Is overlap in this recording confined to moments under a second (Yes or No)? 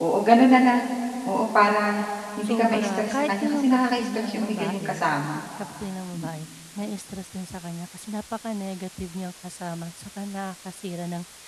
No